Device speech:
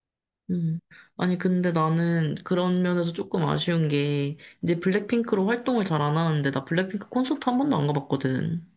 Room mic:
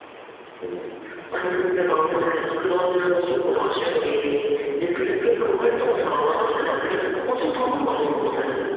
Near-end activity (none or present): none